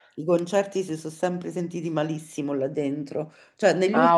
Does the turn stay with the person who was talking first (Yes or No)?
Yes